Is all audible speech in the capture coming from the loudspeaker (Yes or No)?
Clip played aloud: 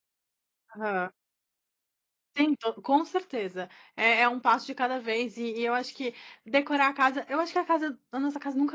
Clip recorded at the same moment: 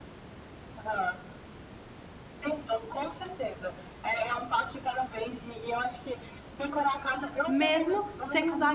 No